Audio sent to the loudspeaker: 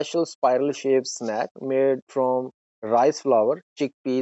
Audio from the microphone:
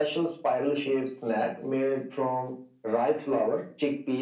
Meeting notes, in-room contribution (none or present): none